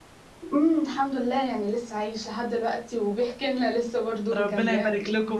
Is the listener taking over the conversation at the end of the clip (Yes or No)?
Yes